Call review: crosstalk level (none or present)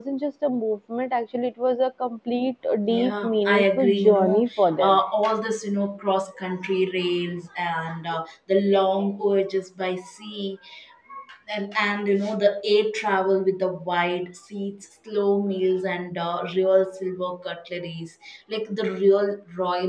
present